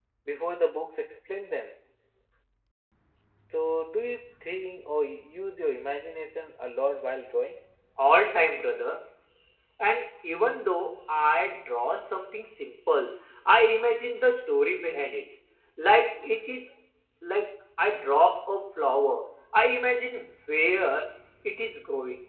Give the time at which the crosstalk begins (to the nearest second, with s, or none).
none